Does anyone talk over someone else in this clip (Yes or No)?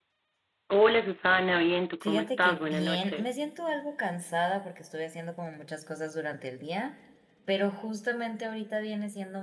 Yes